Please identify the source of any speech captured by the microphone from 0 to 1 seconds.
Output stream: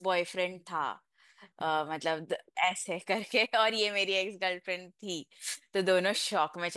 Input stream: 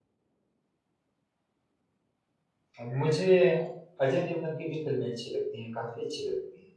neither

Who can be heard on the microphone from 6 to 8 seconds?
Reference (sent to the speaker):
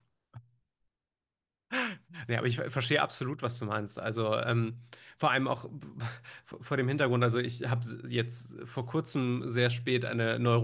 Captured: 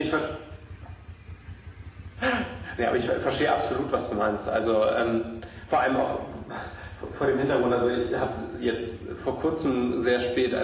echo only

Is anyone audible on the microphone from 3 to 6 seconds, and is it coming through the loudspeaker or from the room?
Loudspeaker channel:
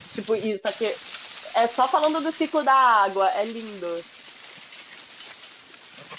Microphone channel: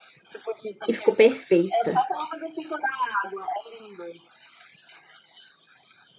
echo only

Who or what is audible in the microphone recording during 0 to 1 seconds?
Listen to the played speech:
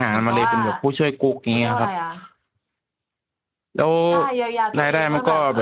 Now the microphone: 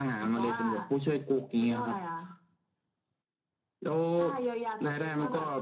echo only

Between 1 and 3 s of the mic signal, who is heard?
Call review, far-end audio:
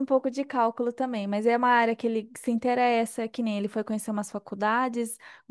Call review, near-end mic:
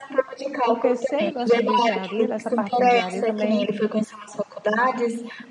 both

